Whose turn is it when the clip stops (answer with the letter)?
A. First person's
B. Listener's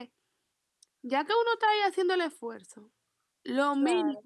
A